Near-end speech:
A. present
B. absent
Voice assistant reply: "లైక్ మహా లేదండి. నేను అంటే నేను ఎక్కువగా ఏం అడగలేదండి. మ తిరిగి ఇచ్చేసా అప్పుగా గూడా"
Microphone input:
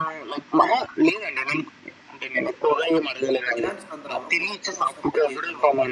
A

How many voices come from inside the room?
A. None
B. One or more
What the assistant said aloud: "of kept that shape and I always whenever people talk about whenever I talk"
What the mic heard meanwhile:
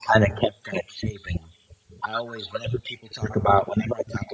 A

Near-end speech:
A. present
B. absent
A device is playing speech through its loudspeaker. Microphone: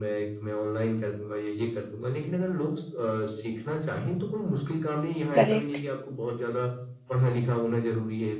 A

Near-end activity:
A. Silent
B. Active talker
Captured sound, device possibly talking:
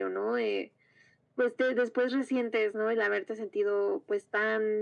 A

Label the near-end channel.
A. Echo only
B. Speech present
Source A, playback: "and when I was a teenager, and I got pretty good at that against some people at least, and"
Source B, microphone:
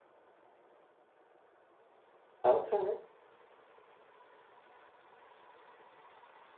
B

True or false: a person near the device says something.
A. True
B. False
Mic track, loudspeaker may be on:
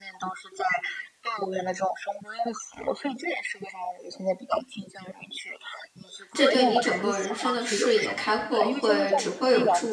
A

